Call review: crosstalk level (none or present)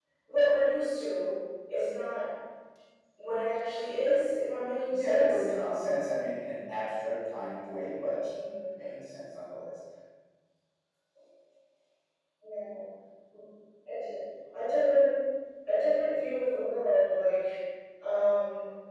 present